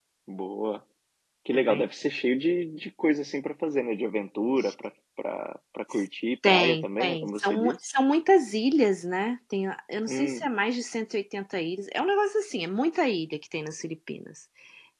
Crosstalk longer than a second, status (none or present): present